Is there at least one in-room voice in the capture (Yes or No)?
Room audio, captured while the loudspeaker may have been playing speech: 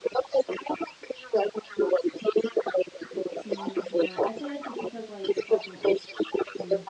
Yes